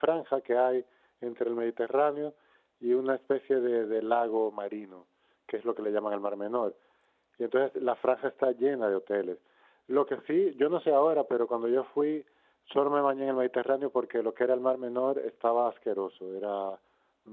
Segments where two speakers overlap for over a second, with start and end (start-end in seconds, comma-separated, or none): none